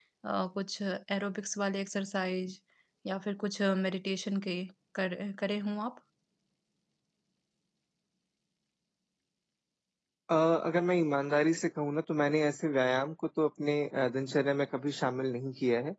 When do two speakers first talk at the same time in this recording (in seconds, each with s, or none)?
none